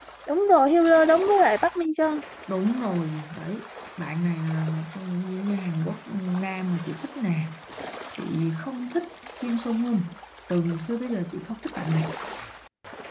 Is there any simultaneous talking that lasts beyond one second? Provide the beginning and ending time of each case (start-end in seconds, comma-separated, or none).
none